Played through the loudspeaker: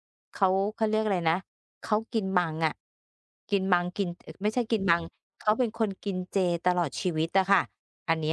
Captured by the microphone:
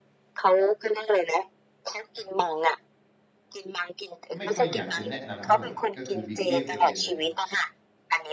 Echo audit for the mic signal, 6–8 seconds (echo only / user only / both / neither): both